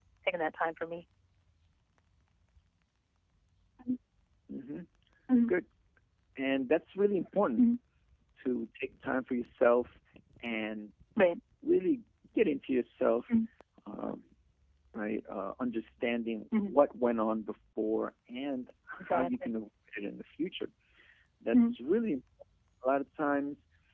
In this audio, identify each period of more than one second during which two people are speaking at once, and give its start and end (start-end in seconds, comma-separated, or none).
none